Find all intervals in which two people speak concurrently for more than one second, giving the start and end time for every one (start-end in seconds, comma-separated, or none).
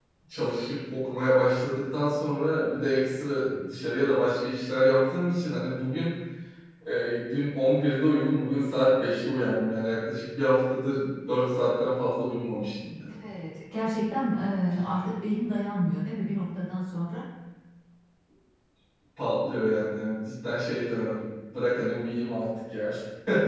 none